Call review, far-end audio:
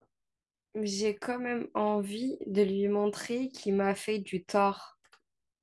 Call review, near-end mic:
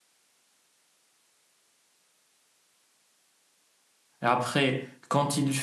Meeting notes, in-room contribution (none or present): present